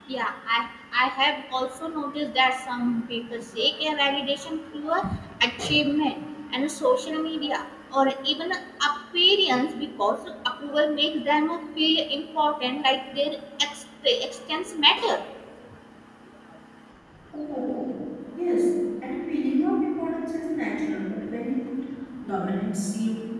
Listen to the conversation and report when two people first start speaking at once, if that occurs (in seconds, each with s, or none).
none